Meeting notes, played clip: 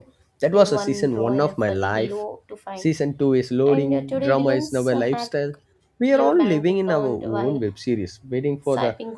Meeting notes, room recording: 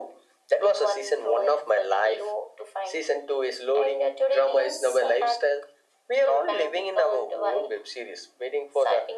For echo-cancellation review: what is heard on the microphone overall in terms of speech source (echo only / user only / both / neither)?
echo only